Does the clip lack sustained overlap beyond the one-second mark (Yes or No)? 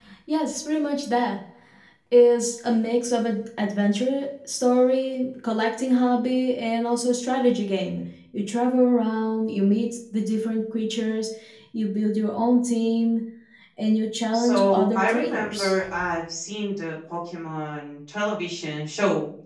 No